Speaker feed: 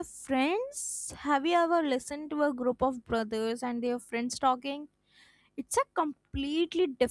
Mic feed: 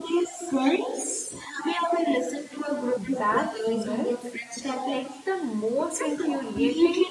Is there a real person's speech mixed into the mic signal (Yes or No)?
Yes